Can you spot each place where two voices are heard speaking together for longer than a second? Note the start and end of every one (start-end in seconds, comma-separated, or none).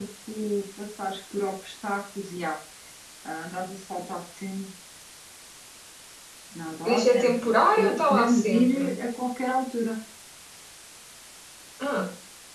6.8-9.0